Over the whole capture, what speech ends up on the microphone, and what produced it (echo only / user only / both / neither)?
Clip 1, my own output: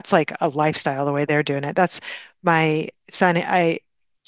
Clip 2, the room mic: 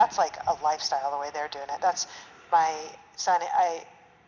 echo only